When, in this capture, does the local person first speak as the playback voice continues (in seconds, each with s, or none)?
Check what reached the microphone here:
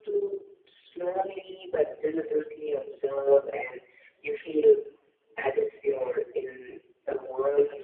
none